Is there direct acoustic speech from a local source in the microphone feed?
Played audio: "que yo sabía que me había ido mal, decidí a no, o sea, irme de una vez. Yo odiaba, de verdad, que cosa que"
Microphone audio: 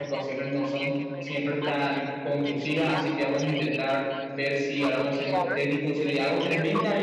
Yes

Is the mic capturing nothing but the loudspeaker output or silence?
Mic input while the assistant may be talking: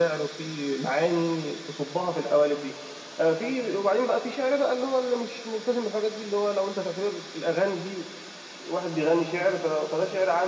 Yes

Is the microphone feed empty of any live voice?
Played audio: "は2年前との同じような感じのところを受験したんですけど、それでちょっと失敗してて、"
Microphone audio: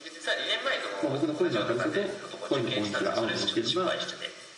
No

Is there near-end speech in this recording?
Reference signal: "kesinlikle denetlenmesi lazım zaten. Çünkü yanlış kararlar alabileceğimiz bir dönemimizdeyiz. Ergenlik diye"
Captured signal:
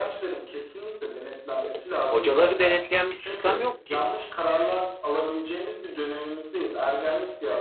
Yes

